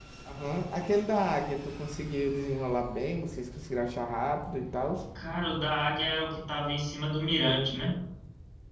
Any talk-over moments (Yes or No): No